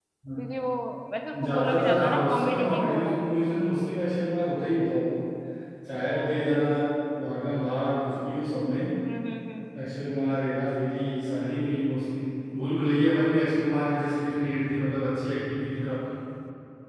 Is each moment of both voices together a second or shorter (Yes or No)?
No